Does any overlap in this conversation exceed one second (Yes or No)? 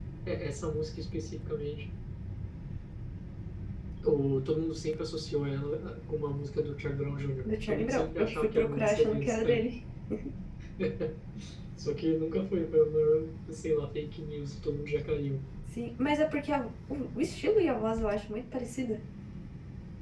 Yes